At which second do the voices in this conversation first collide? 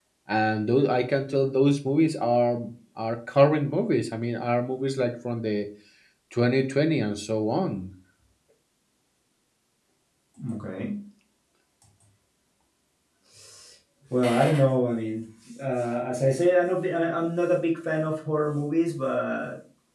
none

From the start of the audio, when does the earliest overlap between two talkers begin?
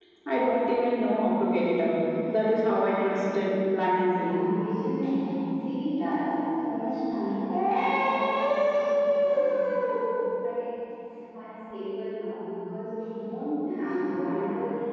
3.0 s

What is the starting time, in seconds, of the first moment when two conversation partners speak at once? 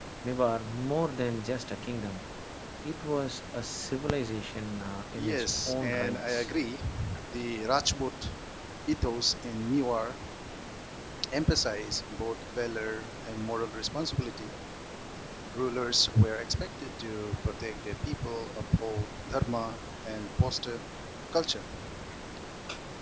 5.1 s

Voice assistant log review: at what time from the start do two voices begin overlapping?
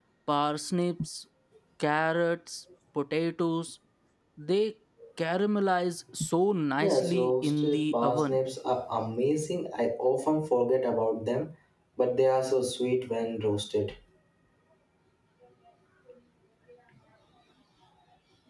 6.8 s

